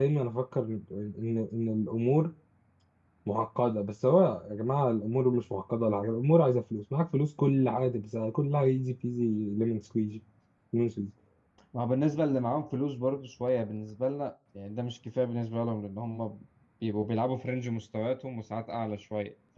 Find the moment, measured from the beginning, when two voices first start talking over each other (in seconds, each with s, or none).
none